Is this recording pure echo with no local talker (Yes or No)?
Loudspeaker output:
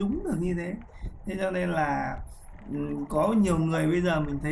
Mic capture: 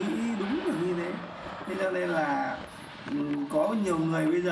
Yes